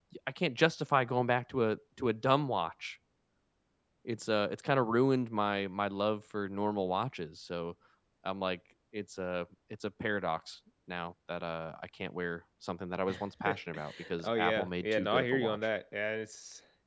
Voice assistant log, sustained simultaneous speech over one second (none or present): present